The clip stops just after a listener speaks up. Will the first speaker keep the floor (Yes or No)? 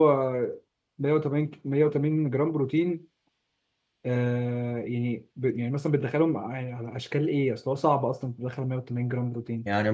No